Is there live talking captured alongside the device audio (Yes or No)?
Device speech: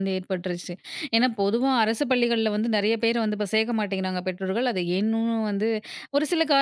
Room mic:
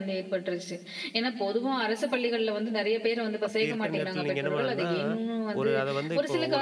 Yes